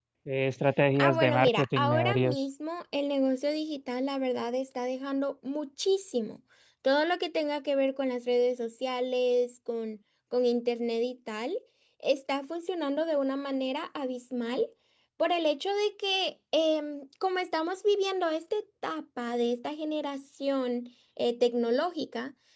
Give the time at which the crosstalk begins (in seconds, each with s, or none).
0.9 s